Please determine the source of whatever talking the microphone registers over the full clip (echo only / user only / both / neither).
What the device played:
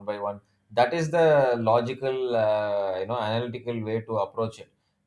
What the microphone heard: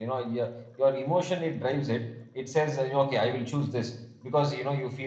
user only